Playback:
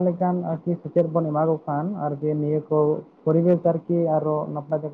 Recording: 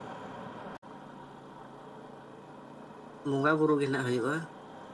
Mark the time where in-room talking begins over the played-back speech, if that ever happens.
3.3 s

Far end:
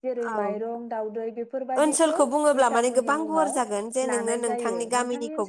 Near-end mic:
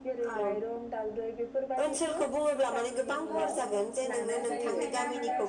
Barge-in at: 3.3 s

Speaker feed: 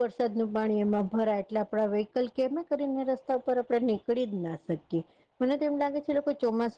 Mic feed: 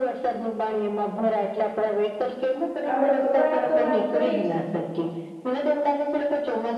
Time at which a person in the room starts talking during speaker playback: 2.9 s

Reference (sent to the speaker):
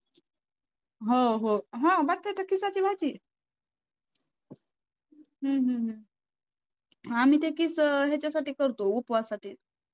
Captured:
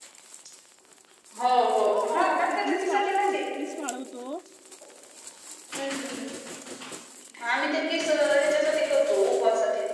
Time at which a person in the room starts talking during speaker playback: 1.9 s

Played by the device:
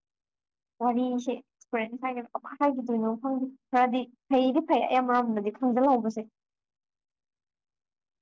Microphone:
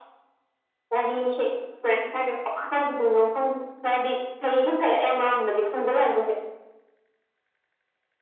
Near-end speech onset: none

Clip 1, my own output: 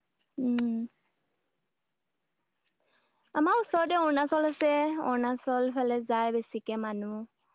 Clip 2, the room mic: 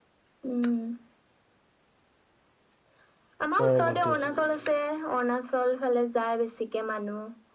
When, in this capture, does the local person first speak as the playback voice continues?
3.6 s

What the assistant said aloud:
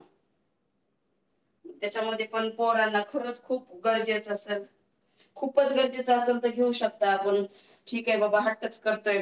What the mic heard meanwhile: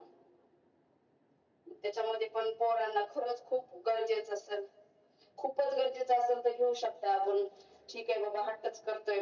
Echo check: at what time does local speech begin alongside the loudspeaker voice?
none

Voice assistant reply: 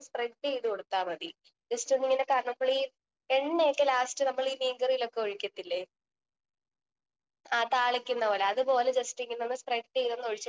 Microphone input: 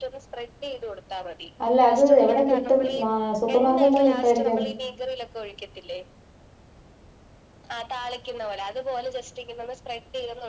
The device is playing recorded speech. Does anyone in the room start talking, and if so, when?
1.7 s

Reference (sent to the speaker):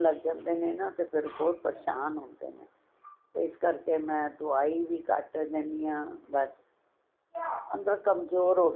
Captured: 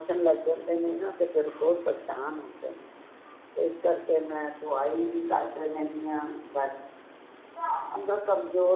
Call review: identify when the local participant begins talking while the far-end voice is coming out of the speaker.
none

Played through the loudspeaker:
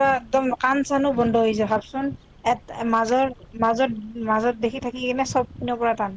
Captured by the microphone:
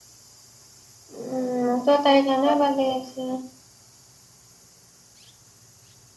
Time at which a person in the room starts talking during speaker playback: 1.2 s

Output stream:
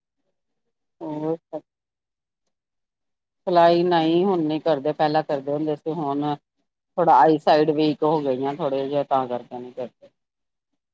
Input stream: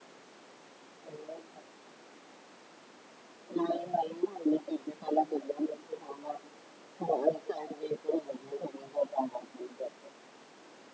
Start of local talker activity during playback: none

